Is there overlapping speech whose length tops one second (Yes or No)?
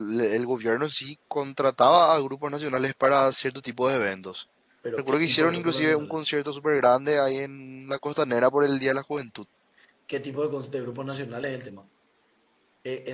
Yes